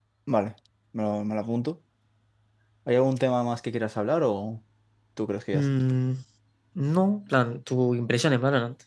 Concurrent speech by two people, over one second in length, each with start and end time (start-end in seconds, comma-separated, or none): none